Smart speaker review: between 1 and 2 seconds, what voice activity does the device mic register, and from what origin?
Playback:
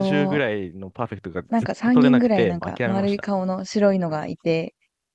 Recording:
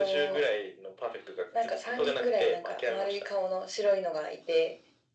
echo only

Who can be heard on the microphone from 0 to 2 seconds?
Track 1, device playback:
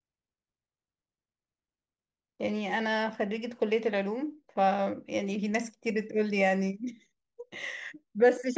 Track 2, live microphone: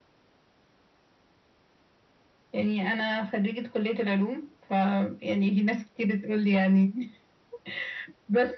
neither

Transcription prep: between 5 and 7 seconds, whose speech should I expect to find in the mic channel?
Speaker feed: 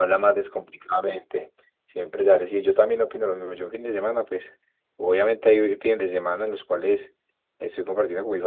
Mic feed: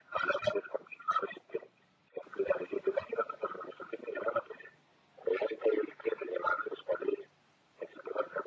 echo only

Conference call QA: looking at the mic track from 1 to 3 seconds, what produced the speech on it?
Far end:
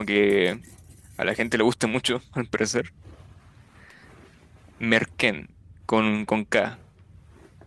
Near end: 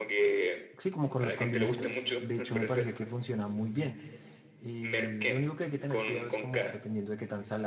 both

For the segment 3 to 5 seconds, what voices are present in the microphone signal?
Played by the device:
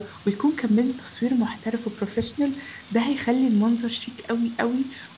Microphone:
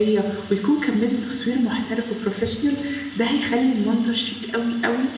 echo only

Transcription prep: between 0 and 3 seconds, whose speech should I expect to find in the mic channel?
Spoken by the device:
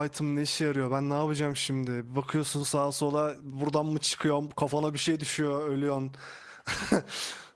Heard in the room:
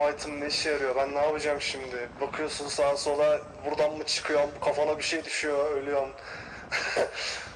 echo only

